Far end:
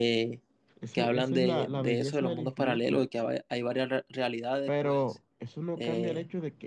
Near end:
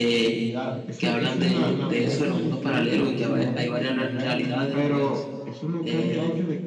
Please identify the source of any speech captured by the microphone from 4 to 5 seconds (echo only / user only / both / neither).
both